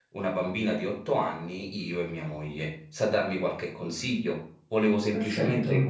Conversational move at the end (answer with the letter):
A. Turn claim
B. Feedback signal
B